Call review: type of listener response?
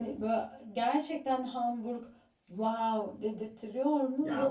taking over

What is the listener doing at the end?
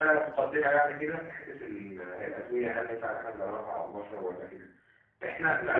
listening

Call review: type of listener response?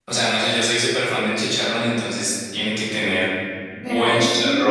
taking over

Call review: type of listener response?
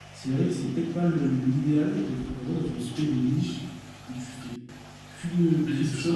taking over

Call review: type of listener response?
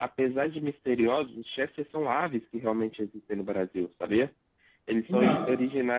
listening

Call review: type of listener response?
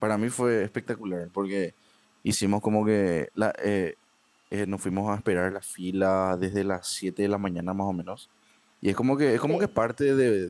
listening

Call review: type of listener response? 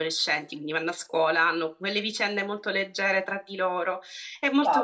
taking over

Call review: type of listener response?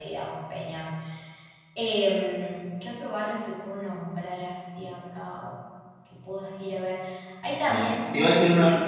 taking over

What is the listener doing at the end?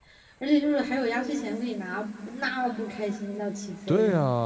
taking over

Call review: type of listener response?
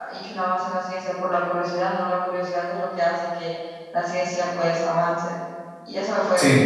listening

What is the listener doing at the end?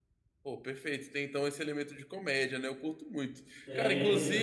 taking over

